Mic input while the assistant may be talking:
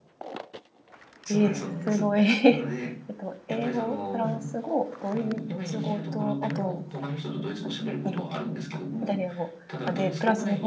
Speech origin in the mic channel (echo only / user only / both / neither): both